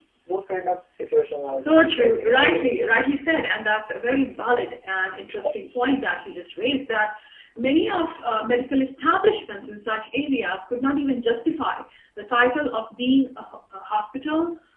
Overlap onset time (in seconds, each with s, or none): 1.5 s